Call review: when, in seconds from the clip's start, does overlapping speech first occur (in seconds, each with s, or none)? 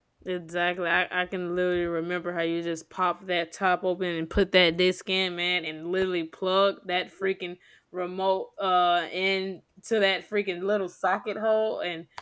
none